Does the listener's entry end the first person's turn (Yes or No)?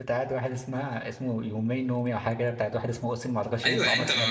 Yes